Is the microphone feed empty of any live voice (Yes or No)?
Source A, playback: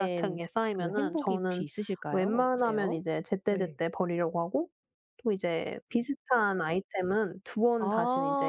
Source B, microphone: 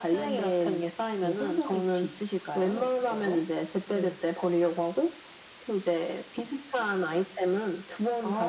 Yes